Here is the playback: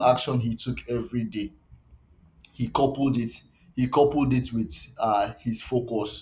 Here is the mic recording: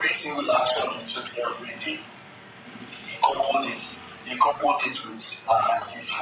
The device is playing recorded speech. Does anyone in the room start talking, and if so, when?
none

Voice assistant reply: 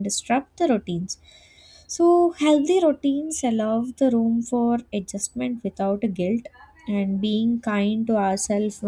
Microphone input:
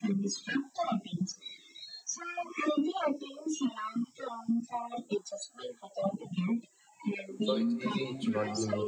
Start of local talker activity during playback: 7.4 s

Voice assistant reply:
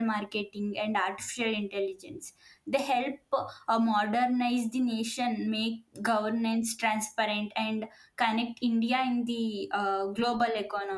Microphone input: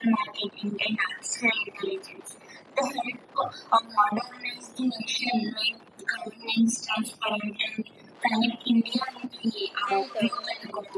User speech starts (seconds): 9.8 s

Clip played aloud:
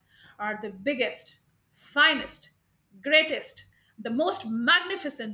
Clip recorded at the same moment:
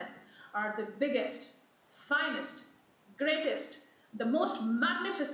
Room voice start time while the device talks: none

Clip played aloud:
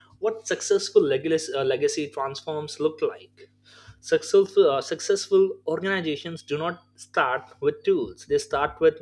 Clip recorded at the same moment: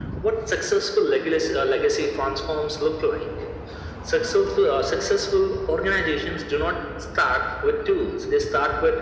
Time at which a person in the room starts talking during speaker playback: none

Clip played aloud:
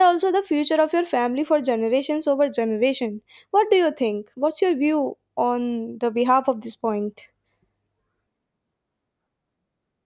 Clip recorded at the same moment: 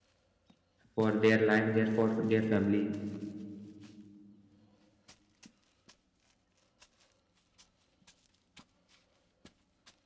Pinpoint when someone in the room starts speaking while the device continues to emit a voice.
0.9 s

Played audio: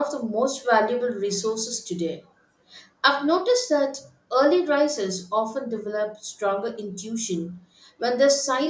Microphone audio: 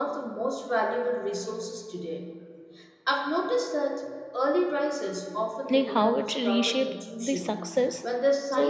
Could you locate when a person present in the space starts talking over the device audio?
5.7 s

